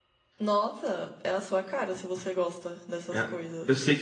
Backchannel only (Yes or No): No